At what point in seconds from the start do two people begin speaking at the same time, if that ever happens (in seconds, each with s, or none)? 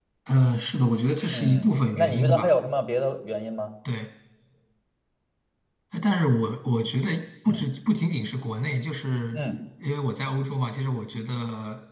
1.3 s